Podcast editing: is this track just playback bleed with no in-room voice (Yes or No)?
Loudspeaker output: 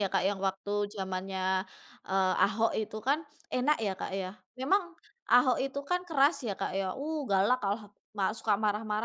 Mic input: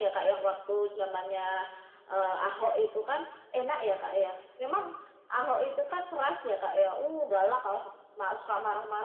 Yes